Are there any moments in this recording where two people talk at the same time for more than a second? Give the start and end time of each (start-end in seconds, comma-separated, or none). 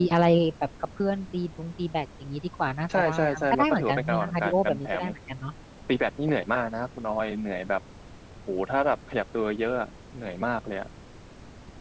3.0-5.0